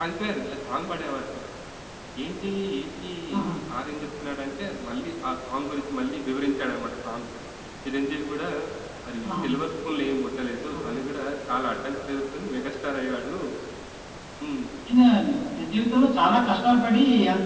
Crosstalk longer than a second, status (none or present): none